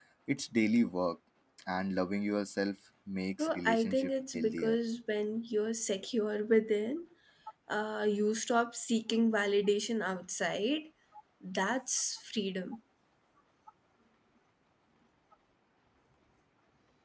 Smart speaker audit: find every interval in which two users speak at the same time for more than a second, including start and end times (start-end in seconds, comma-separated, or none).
3.4-4.8